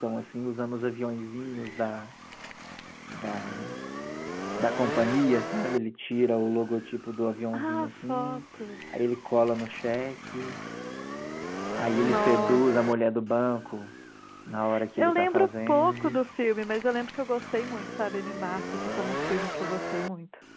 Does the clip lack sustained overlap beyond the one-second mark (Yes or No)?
No